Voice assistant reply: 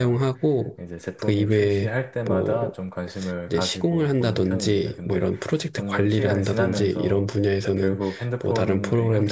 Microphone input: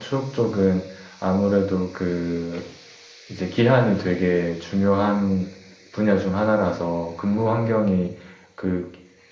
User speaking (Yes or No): Yes